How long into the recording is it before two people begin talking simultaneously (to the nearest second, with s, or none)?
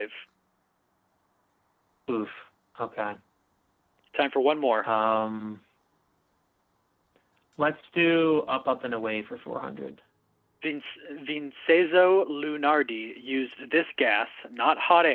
none